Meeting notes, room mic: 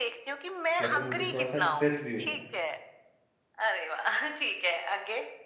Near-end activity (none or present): present